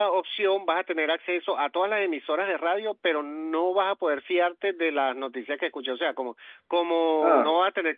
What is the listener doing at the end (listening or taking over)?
listening